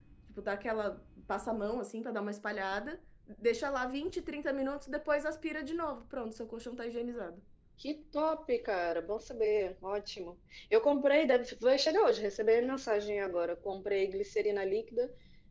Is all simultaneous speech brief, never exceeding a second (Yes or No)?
Yes